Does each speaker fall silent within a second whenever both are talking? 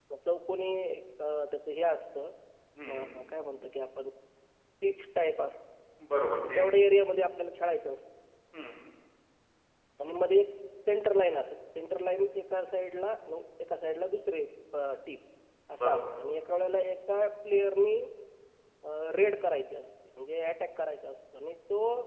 Yes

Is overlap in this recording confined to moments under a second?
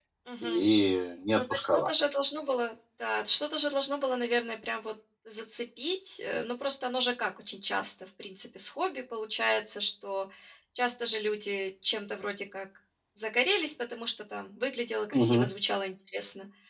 Yes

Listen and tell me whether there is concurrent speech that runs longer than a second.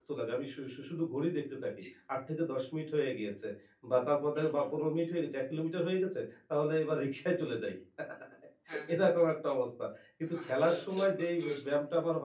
Yes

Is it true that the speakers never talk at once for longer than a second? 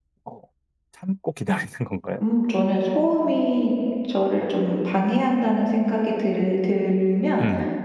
Yes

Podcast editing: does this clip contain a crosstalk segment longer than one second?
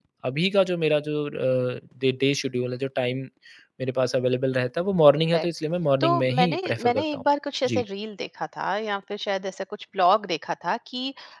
Yes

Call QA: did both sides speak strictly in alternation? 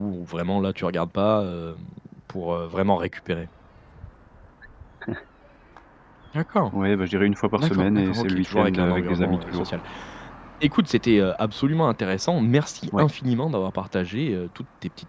No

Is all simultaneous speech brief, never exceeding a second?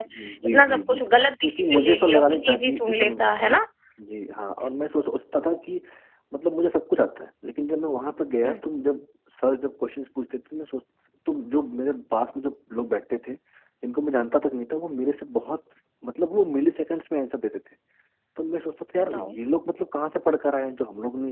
No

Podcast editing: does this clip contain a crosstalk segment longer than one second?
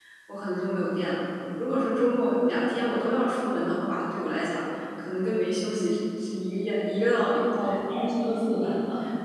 No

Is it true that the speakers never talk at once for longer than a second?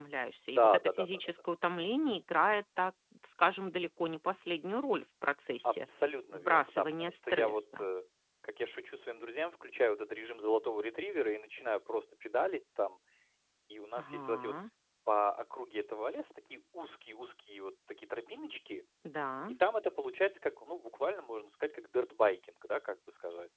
No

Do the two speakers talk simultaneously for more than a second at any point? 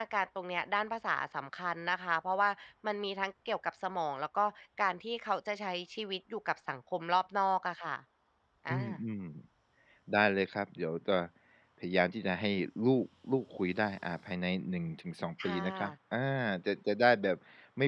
No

